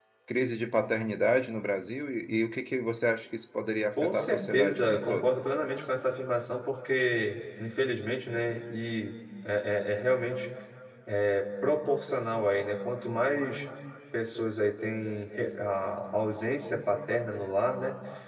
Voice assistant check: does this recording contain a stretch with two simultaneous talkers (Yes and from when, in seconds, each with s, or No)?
Yes, from 4.0 s